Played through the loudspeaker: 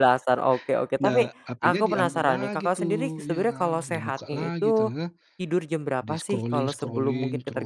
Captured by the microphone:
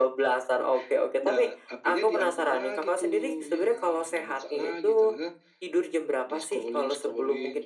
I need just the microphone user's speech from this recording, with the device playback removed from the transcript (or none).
none